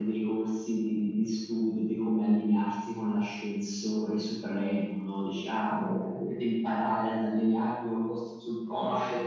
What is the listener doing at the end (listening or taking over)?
taking over